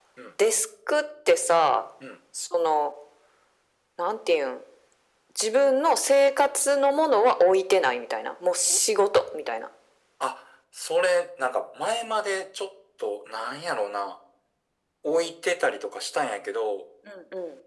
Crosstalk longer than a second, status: none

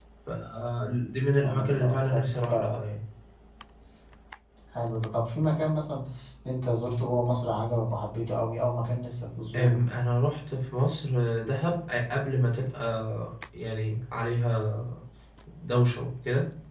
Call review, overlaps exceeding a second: present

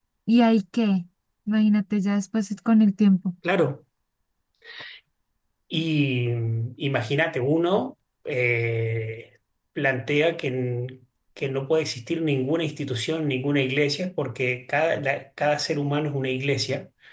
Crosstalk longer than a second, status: none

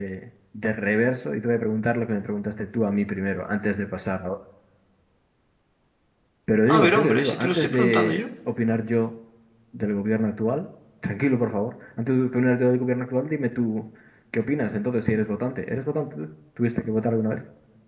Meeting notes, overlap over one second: present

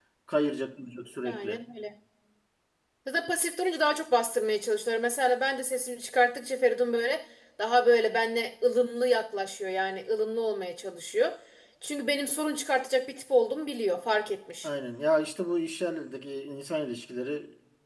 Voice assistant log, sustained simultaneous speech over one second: none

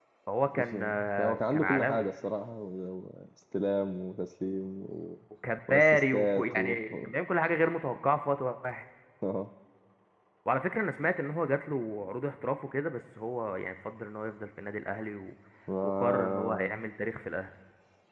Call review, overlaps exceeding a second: present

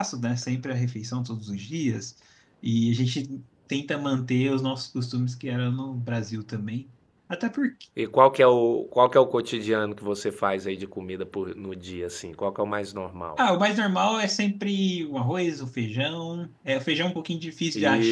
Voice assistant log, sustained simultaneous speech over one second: none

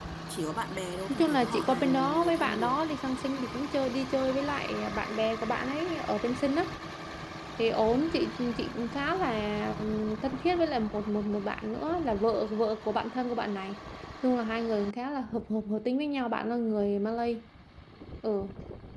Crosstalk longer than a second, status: present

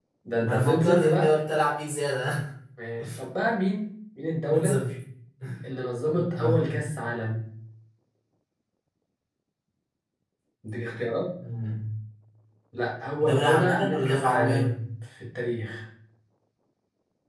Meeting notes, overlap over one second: present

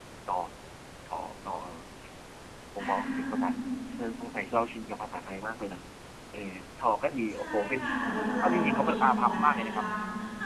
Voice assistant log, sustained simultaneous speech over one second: present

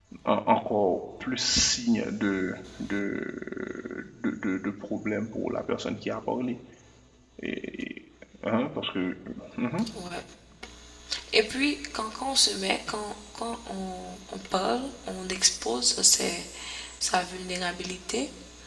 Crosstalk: none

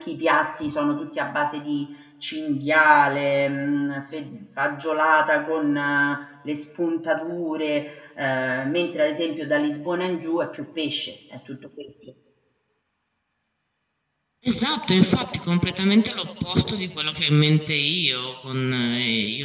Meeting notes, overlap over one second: none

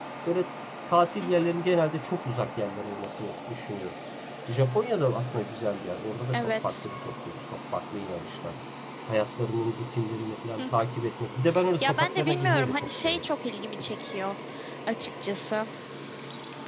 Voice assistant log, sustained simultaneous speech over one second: present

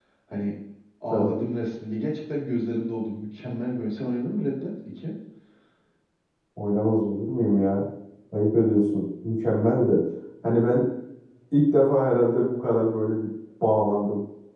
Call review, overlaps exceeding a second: none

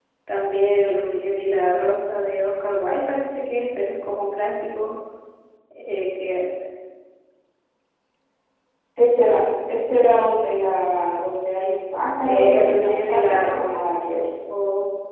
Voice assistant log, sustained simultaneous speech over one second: present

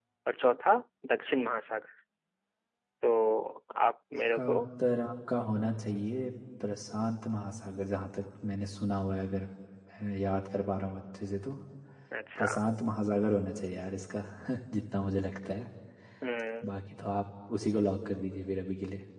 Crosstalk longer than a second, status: none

